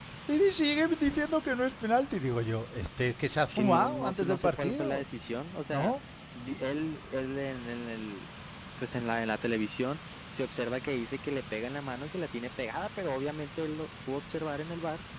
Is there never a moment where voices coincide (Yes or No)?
No